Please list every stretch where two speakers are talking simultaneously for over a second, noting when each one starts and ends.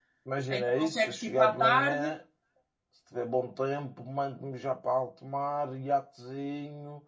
0.5-2.1

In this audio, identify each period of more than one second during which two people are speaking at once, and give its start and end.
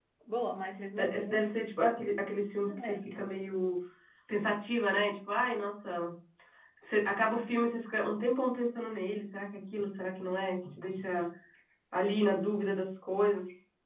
none

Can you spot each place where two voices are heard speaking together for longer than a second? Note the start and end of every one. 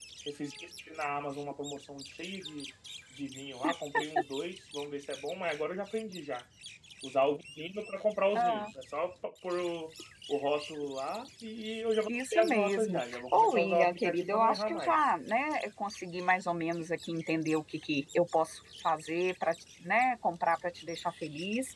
12.1-14.9

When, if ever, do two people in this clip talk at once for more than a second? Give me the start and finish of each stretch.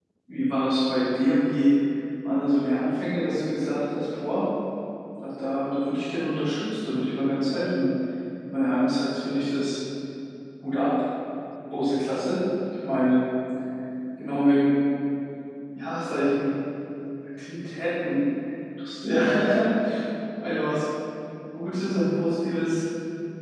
none

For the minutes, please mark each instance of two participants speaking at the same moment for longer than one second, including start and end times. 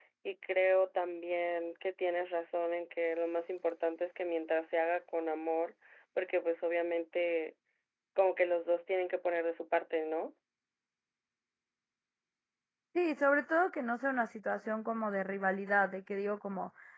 none

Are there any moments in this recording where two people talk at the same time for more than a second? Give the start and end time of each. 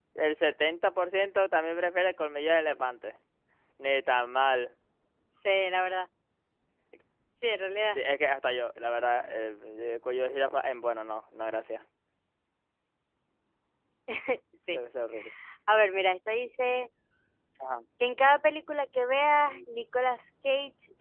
none

